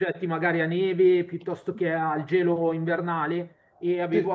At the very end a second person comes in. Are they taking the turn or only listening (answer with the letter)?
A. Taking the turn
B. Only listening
B